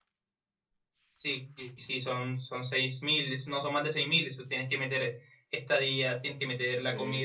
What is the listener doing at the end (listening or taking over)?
listening